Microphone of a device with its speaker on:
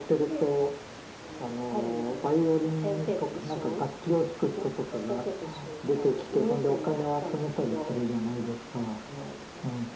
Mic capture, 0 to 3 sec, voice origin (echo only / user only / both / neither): echo only